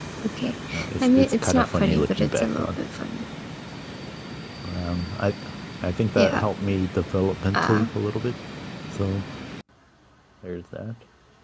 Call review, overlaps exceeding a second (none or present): present